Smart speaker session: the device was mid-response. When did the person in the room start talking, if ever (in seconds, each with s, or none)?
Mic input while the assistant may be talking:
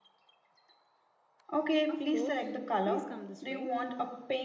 1.9 s